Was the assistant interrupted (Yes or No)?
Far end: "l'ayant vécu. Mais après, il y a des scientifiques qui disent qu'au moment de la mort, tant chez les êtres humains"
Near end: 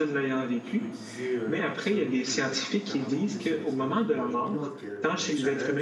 Yes